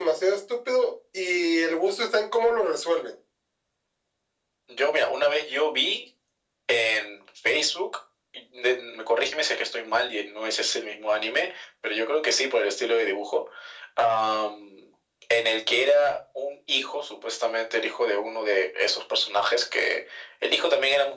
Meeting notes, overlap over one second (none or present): none